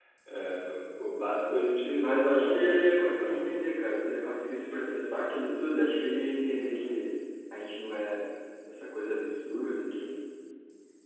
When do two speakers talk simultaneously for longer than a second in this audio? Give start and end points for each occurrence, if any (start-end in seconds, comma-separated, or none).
2.0-3.5